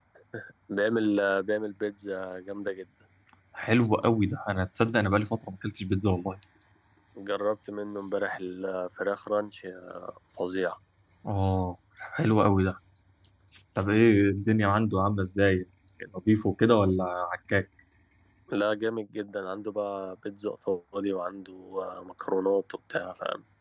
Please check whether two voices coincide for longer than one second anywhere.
No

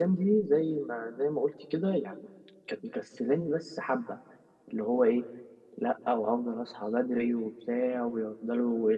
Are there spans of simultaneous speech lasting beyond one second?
No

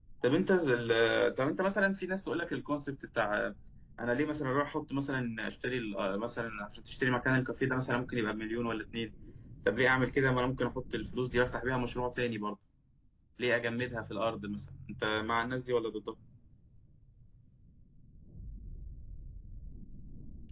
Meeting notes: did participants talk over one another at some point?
No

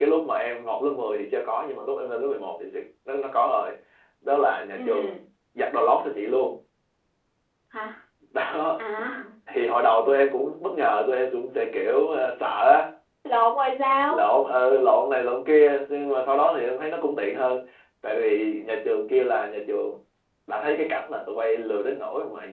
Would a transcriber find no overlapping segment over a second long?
Yes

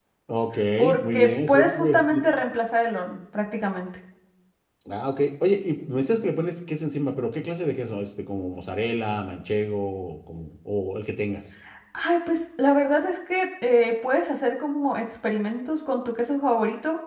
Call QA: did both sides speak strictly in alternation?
No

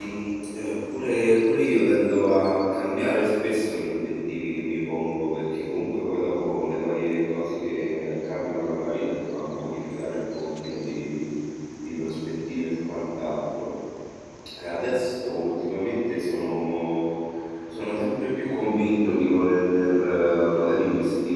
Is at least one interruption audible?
No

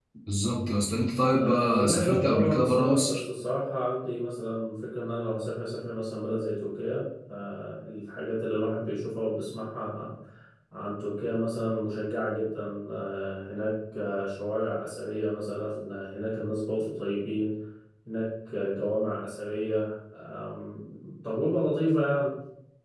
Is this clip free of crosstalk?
No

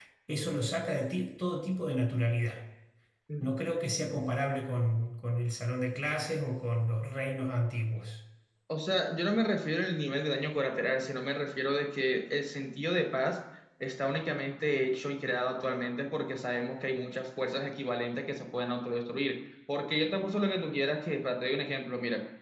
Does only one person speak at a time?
Yes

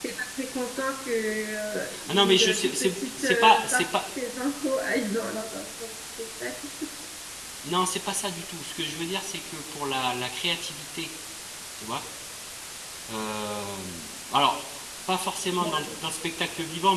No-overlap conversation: No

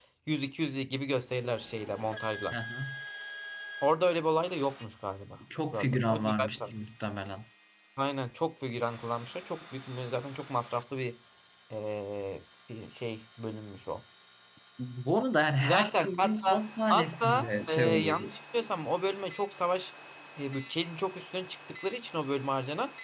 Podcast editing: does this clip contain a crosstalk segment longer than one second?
Yes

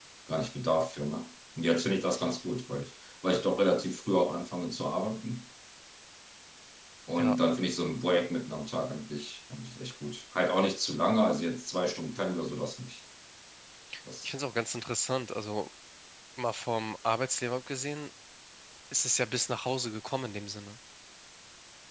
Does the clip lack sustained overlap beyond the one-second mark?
Yes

